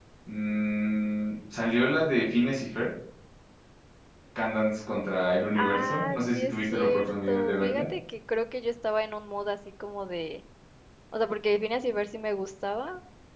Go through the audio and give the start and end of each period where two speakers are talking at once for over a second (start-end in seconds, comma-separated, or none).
5.5-7.8